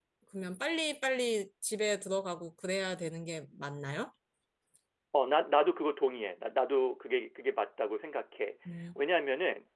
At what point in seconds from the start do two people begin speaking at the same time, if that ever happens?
none

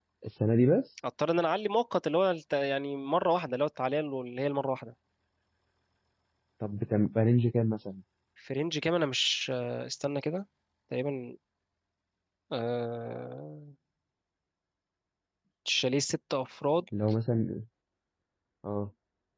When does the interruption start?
none

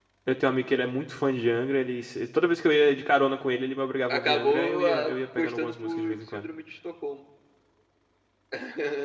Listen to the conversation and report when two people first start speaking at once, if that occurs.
4.1 s

